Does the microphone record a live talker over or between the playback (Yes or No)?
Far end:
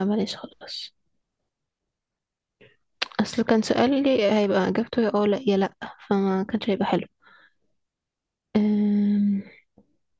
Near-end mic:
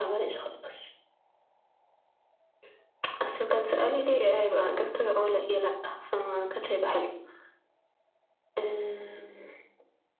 No